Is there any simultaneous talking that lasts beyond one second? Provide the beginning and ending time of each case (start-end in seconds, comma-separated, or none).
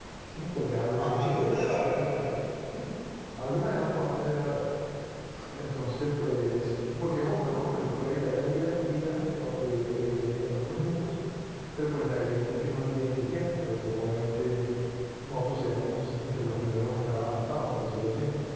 0.6-2.0